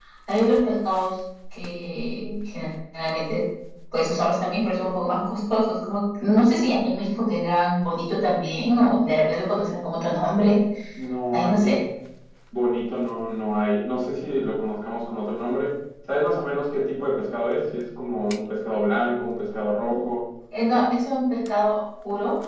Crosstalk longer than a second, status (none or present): none